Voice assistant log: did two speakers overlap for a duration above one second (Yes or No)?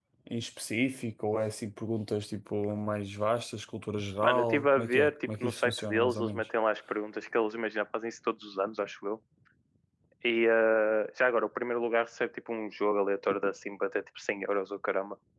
Yes